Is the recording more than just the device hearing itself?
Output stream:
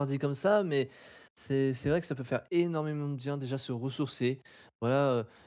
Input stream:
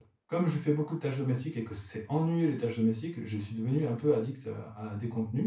Yes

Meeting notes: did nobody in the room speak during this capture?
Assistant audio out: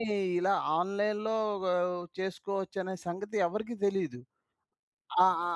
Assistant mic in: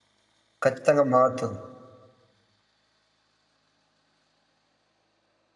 No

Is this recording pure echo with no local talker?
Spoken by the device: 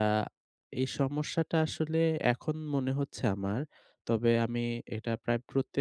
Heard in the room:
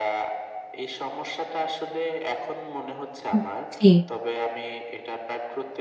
No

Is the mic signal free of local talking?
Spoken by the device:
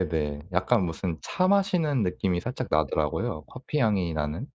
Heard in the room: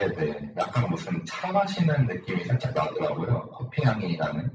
Yes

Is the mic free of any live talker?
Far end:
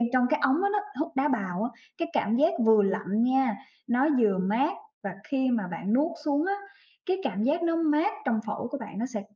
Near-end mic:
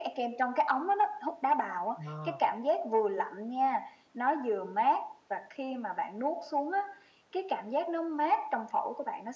No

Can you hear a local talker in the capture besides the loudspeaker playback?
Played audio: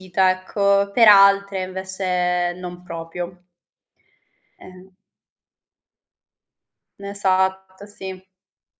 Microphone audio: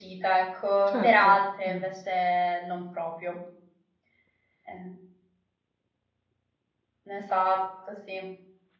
Yes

